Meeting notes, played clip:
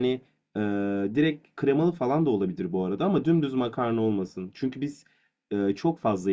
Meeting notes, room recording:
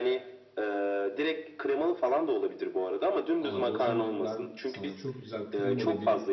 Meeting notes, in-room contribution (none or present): present